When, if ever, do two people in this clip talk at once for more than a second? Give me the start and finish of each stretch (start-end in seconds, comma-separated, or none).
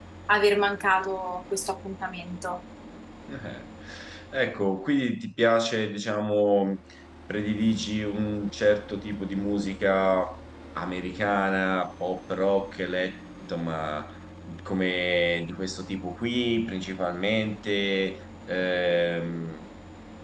none